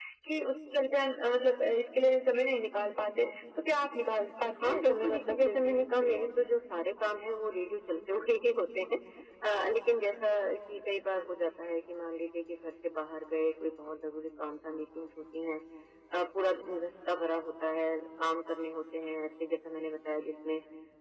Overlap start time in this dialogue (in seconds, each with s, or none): 4.5 s